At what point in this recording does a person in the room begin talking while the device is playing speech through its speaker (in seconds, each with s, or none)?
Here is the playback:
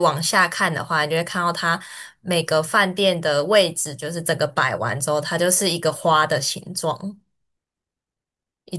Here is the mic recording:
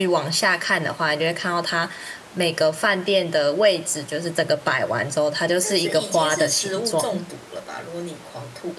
5.6 s